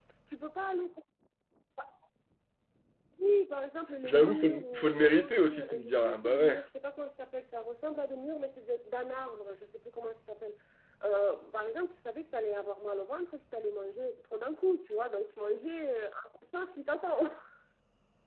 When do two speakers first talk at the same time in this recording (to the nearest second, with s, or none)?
4 s